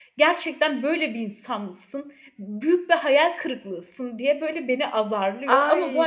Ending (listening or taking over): taking over